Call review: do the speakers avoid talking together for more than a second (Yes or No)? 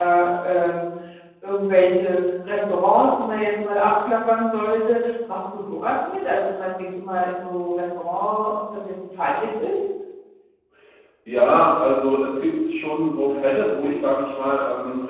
Yes